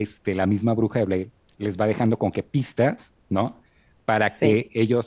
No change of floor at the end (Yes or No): Yes